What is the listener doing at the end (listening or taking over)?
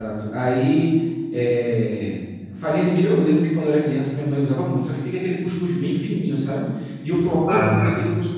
listening